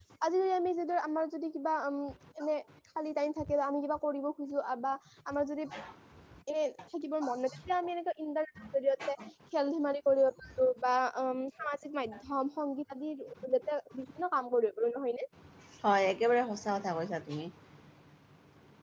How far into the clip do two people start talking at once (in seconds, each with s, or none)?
none